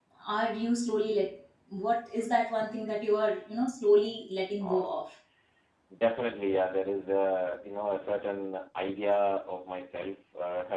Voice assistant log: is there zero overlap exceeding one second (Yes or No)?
Yes